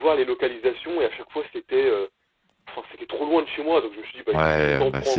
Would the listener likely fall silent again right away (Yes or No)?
No